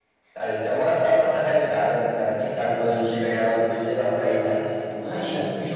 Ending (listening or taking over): taking over